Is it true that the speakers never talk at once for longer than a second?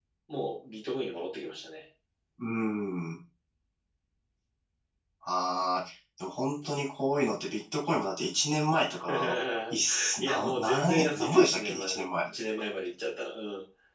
No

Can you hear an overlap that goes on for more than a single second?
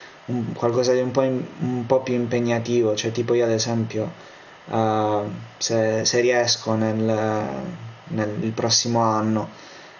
No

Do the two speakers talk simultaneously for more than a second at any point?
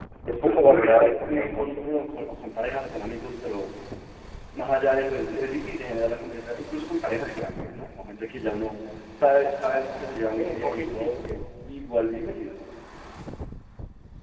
Yes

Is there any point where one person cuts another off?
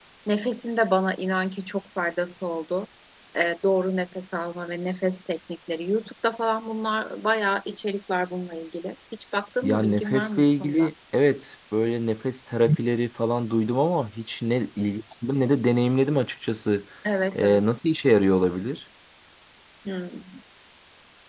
Yes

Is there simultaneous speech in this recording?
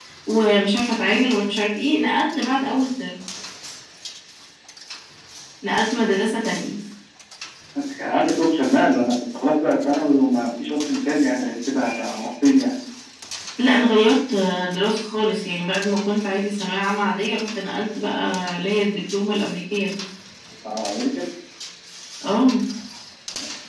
No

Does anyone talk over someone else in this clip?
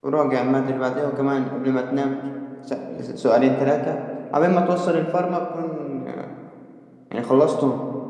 No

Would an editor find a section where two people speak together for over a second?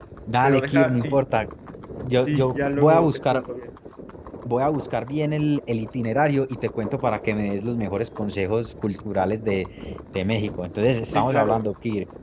Yes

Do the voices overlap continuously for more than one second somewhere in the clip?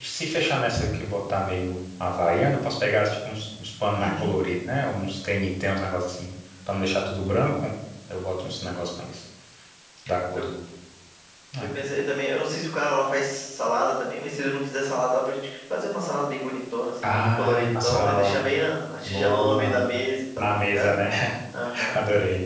Yes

